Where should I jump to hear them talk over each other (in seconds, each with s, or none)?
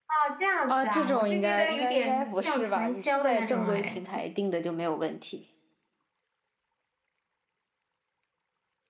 0.7 s